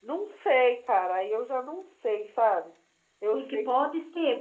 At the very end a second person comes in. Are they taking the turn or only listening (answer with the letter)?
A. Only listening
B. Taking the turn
B